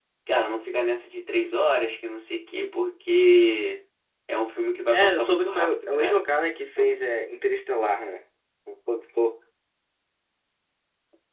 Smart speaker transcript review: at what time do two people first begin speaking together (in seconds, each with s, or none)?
4.9 s